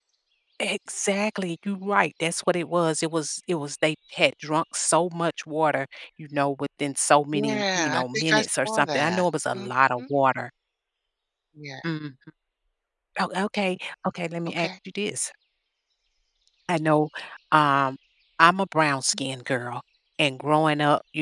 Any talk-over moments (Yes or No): Yes